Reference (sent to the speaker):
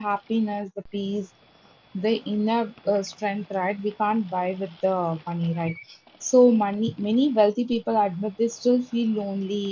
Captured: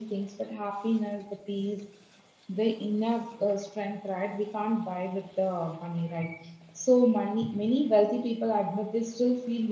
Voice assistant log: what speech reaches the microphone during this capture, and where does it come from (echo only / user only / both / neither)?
echo only